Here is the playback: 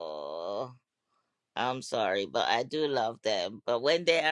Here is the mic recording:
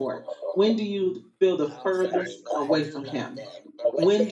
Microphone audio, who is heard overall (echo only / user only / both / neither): both